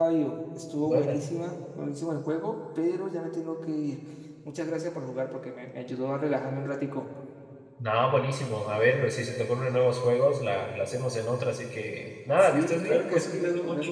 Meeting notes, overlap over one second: present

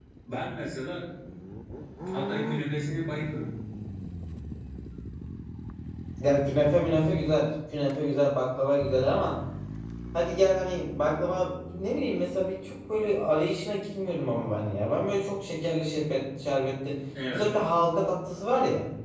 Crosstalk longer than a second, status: none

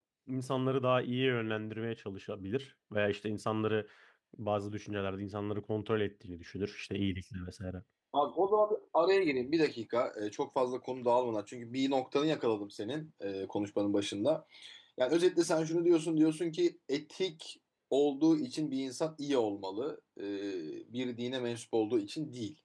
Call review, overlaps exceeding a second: none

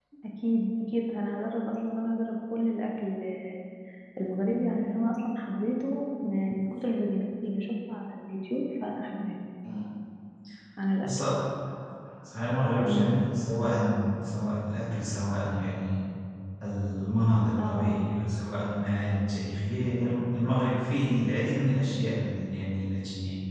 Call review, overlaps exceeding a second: none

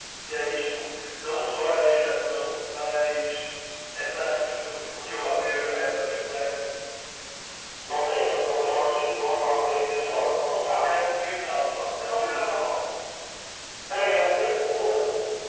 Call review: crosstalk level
none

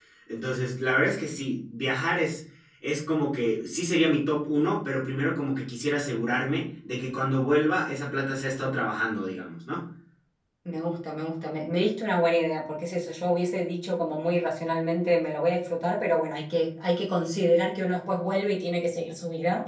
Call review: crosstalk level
none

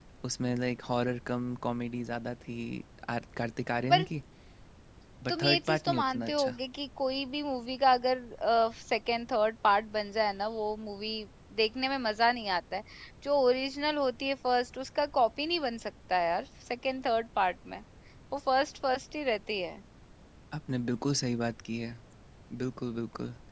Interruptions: present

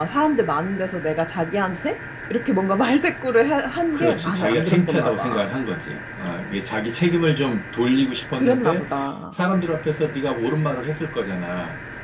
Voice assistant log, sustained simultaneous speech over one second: present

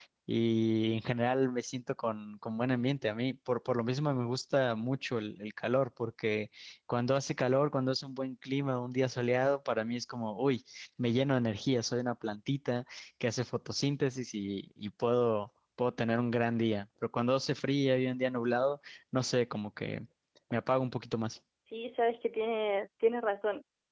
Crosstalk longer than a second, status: none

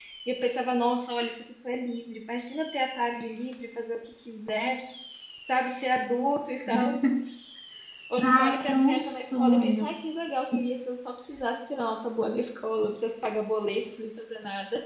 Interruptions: present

